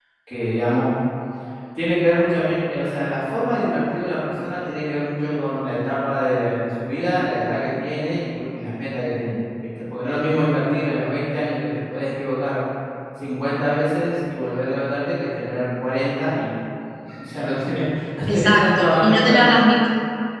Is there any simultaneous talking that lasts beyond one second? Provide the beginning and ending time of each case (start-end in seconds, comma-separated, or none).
18.3-19.5